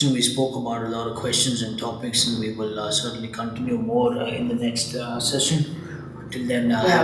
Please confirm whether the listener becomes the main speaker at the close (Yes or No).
No